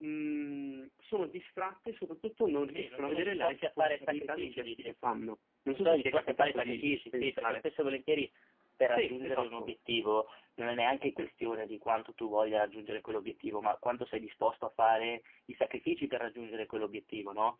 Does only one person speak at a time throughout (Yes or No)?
No